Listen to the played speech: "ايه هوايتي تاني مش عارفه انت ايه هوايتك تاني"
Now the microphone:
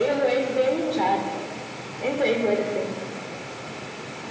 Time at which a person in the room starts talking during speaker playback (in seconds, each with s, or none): none